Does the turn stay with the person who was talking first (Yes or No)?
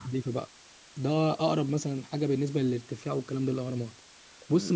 Yes